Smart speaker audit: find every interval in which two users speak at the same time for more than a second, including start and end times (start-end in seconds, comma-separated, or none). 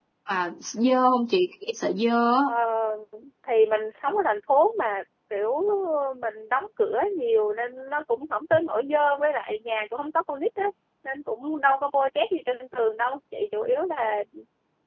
none